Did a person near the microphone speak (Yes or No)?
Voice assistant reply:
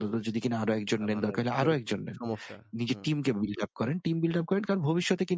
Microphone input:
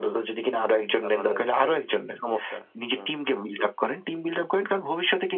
No